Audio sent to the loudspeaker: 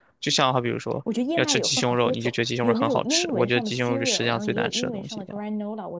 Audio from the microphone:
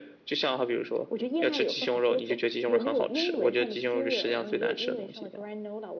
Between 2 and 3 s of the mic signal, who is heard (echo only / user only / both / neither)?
echo only